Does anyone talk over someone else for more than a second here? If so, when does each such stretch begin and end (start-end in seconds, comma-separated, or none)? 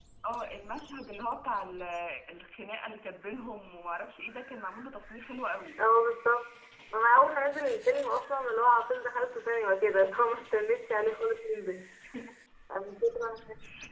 none